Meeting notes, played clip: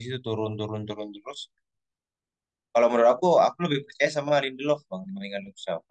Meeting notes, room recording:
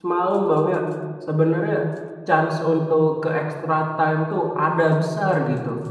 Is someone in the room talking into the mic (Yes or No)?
Yes